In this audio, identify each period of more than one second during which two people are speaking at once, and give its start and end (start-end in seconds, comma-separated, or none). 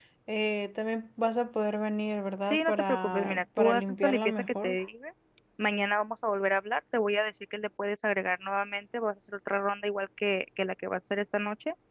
2.4-4.8